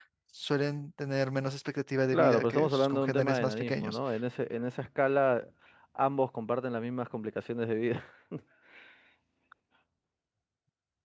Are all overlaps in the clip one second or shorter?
No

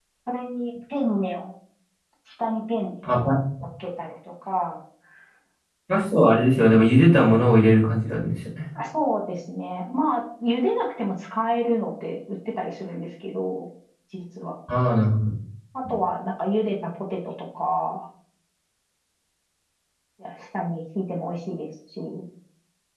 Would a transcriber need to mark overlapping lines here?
No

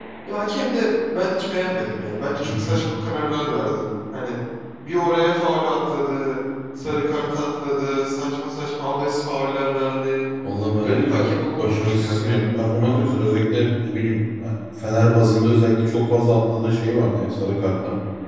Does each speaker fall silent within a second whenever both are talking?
No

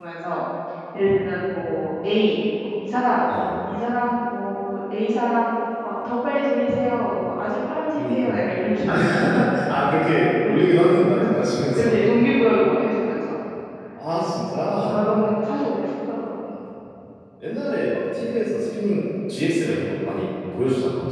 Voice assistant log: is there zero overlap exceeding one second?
Yes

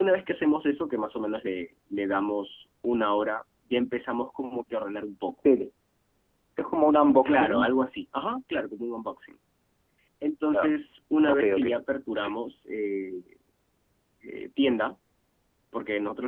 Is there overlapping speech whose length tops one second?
No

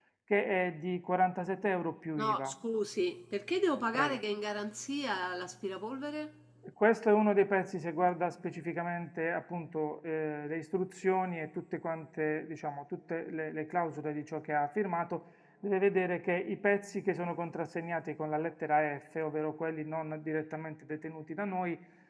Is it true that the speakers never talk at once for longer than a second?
Yes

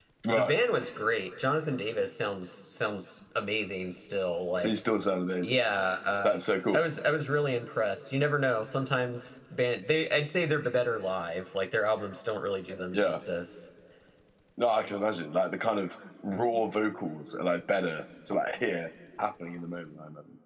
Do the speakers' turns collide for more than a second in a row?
No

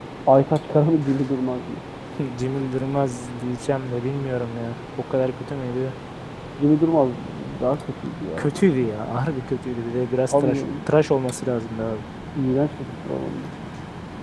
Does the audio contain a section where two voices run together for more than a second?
No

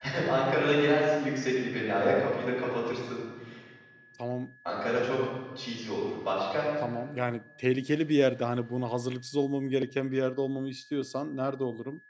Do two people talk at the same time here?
No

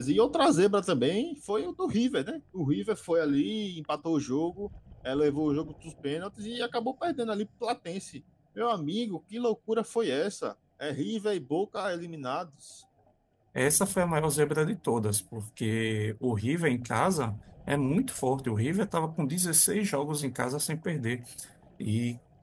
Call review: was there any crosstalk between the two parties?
No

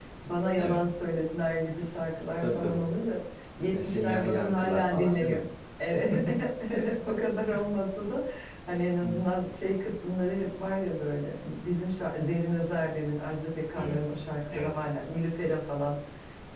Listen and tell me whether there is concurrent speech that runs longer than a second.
Yes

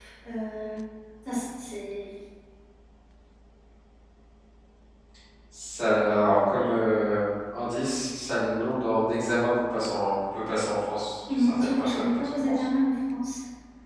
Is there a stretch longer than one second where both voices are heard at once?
Yes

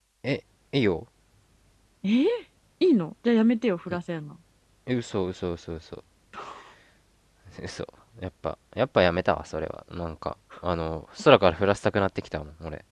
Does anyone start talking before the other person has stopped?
No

